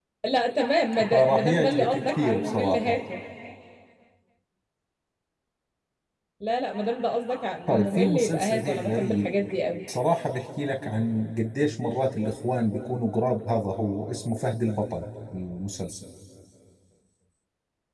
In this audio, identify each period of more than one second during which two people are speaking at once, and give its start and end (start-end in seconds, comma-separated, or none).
1.1-3.0, 7.7-9.3